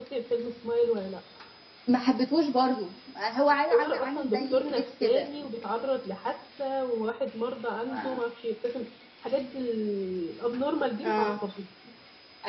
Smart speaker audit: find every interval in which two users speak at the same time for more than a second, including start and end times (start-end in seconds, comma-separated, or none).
3.5-5.3